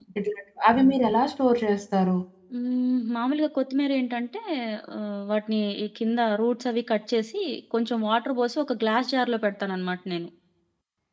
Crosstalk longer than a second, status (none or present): none